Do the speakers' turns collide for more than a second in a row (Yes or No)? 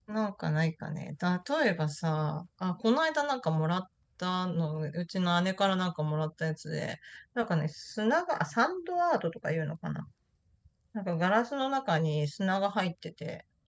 No